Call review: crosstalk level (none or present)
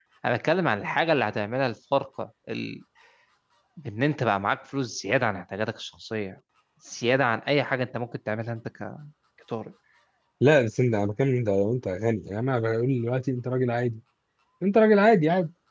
none